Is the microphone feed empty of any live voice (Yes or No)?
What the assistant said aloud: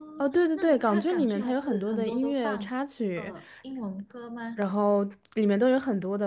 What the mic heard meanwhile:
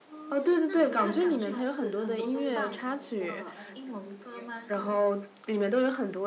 No